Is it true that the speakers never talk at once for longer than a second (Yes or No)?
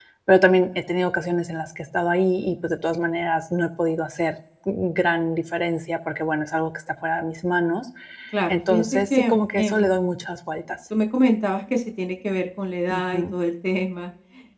No